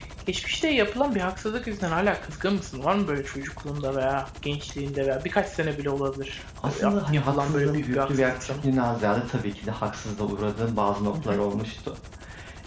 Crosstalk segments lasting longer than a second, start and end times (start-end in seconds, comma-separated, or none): 6.7-8.5